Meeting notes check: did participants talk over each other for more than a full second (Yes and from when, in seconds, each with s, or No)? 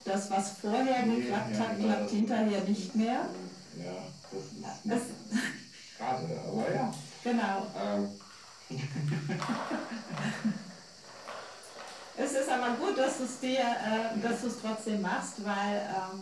Yes, from 0.9 s